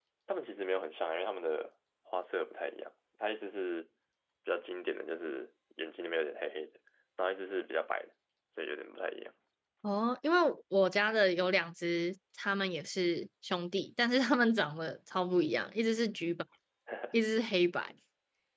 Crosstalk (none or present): none